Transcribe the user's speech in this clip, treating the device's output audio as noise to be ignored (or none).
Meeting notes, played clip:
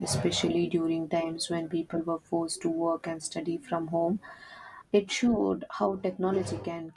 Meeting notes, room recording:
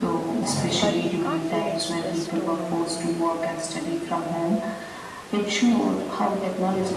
but they can't fully express tone or feeling.